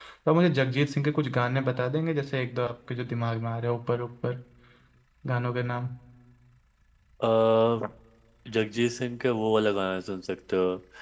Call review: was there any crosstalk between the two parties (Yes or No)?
No